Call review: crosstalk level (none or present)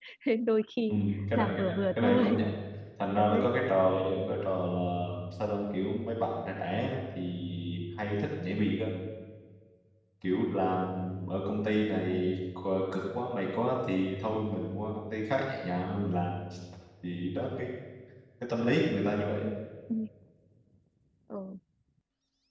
present